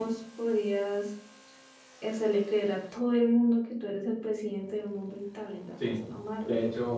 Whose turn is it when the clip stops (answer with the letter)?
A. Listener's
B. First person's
A